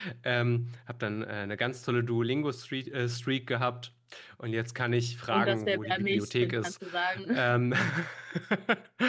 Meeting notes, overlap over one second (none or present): present